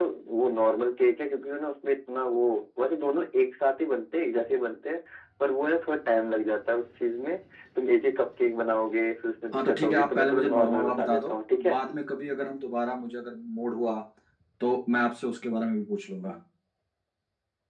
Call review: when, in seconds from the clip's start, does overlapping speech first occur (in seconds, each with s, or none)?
9.5 s